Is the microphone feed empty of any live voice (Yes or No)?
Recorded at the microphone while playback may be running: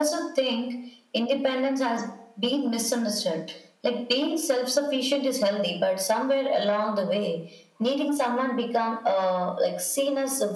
Yes